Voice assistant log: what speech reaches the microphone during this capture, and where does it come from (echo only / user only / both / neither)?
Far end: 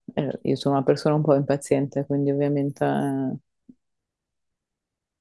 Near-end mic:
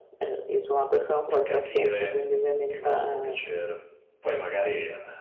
both